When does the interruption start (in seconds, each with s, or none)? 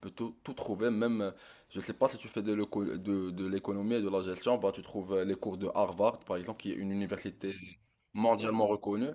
none